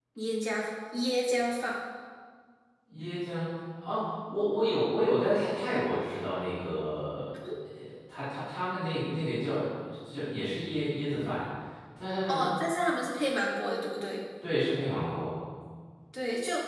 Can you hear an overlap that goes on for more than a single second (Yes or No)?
No